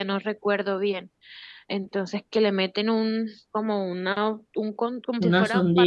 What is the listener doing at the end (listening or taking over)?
listening